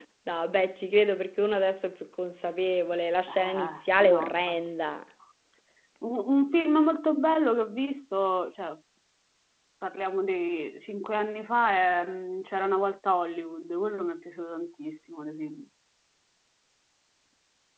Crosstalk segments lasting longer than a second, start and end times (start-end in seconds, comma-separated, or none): 3.3-4.9